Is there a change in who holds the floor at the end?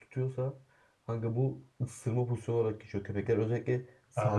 No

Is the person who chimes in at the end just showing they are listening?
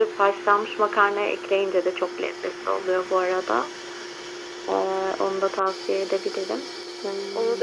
No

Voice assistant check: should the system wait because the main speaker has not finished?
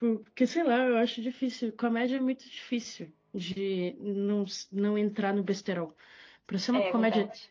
Yes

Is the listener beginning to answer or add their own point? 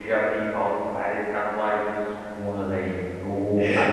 No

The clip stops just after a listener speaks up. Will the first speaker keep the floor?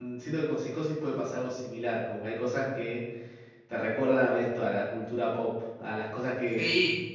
No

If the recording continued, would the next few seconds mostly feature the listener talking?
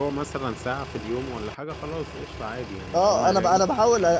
Yes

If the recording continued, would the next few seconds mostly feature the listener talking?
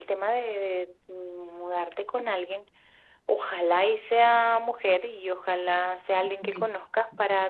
No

